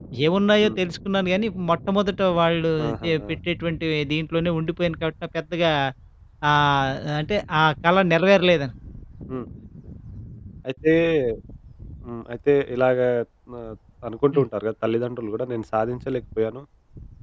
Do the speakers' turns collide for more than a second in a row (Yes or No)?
No